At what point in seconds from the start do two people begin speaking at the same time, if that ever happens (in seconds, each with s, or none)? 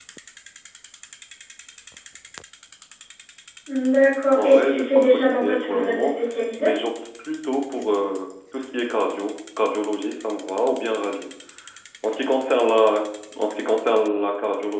4.3 s